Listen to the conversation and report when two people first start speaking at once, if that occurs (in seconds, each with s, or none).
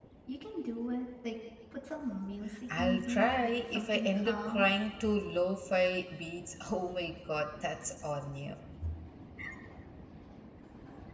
2.8 s